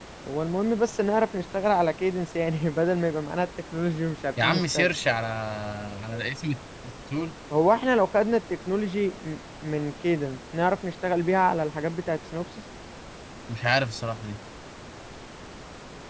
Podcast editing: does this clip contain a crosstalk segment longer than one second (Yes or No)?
No